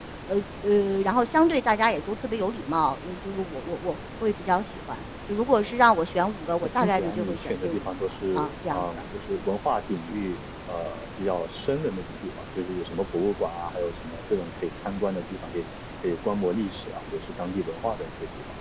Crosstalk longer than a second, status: present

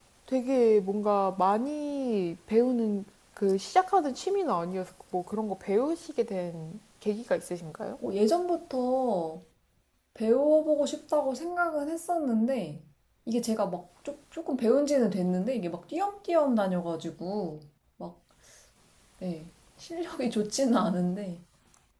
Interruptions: none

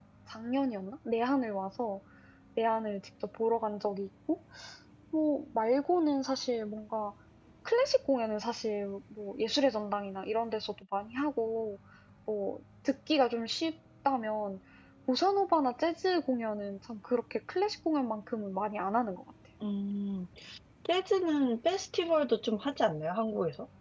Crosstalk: none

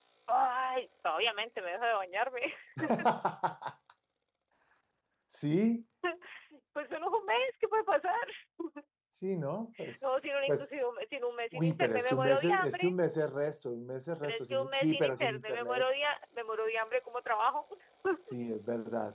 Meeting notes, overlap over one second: present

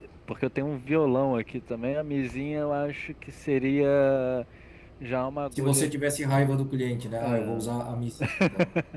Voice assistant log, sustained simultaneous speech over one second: none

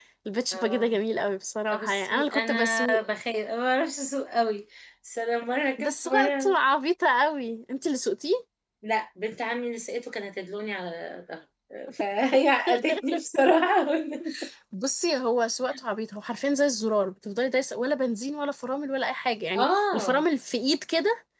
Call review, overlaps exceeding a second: present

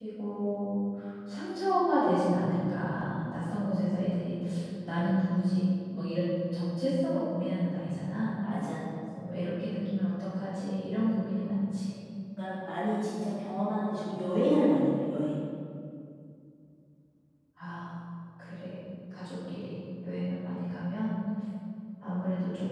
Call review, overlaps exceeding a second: none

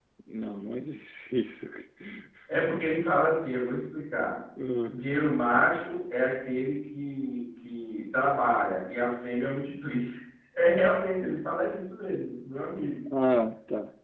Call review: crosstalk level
none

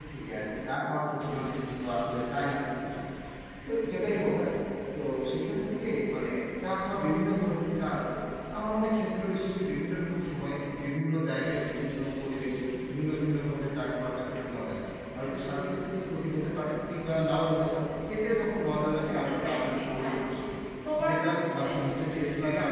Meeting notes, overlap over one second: present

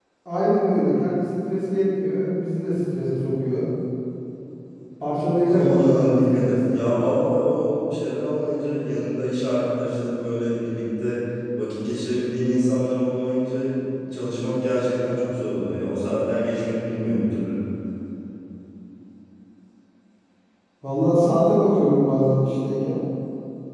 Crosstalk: present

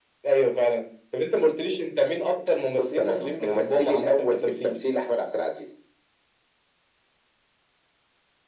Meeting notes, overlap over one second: present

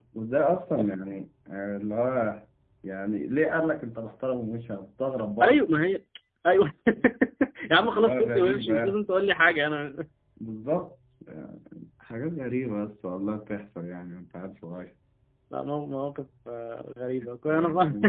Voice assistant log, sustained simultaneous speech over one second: present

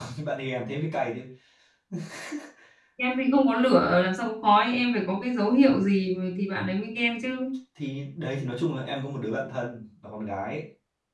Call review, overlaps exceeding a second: none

